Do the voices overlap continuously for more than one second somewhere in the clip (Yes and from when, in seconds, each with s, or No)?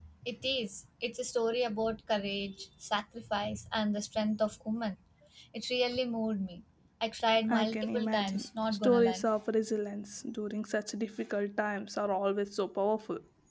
Yes, from 7.5 s